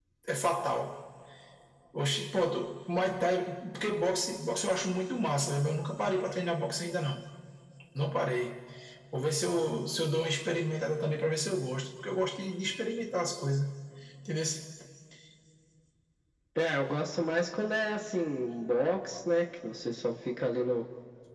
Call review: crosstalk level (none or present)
none